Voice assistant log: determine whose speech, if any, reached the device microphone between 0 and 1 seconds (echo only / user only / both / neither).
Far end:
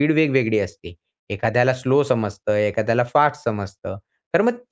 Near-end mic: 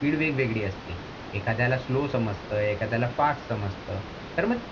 echo only